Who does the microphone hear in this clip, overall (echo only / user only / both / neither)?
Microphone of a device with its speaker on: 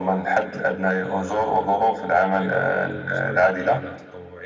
both